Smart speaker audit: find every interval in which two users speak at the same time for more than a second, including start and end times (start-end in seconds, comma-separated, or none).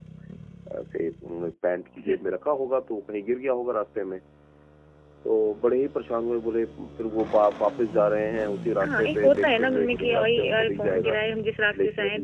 8.8-11.2